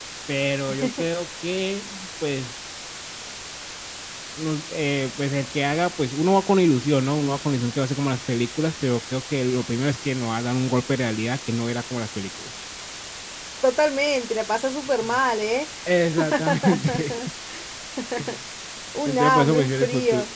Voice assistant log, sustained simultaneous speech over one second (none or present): present